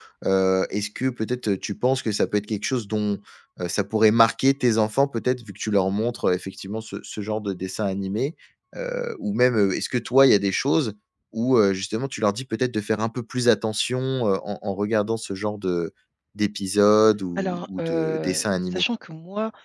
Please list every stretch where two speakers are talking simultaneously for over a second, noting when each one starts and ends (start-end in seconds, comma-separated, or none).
17.4-18.8